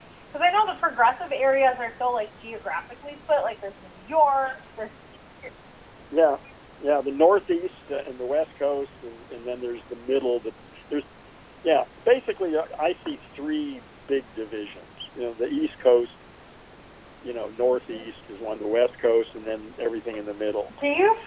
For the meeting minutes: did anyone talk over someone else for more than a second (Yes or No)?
No